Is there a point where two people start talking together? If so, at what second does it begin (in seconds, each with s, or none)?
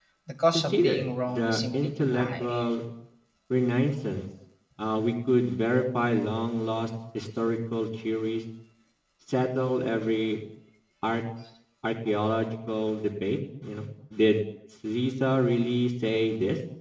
0.5 s